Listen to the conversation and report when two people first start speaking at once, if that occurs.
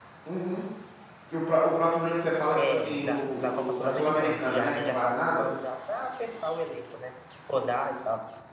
2.5 s

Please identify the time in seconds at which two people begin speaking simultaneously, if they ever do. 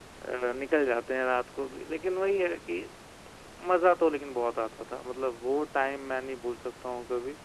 none

